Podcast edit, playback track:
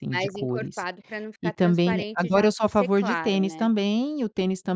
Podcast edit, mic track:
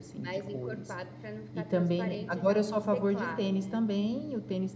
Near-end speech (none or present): none